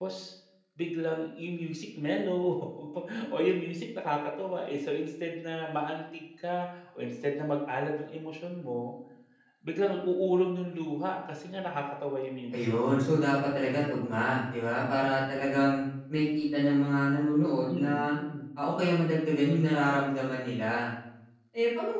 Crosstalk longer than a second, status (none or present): none